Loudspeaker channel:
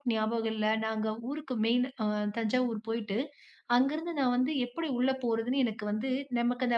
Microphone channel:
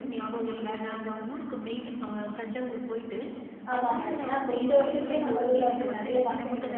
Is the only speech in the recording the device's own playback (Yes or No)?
No